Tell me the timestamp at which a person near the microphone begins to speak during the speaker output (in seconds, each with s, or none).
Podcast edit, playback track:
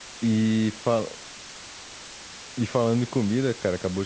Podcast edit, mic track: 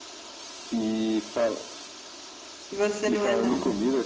2.7 s